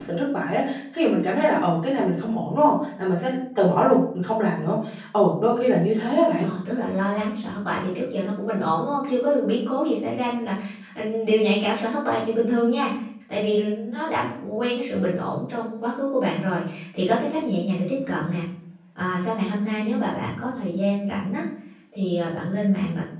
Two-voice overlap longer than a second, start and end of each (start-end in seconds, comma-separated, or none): none